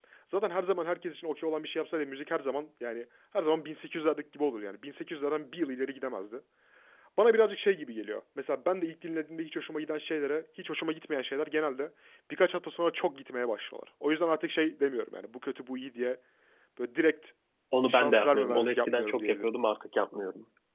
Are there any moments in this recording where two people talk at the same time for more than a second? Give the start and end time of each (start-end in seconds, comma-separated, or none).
17.9-19.5